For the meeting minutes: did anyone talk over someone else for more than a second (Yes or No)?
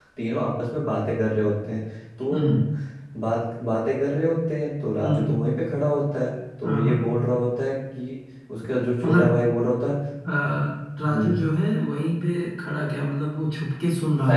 No